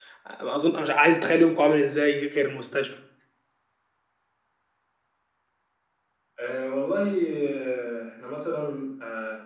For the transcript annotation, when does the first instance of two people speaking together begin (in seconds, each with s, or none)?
none